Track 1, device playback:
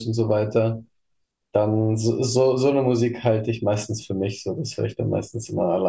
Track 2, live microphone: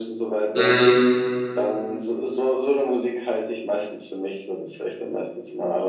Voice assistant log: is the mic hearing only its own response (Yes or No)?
No